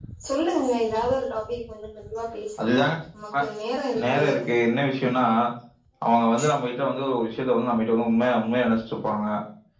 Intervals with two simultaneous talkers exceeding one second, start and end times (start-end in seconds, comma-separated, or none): none